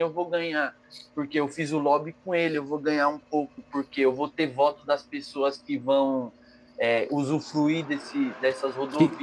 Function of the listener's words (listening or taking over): taking over